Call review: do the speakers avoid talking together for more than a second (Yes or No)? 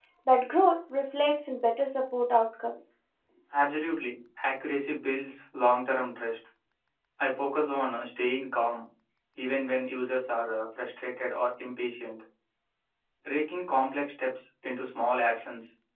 Yes